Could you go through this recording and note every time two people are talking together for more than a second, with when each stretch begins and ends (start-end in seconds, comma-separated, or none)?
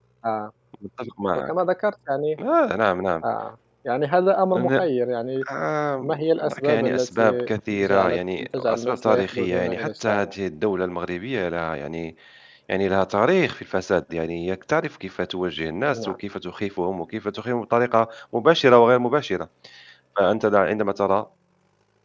6.0-10.3